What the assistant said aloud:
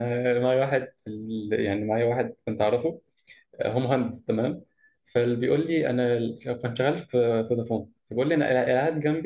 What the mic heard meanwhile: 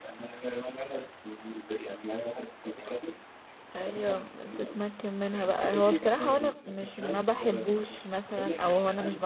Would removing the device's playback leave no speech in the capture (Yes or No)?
No